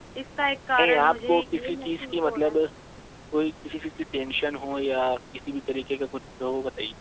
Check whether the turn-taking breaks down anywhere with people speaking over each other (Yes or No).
Yes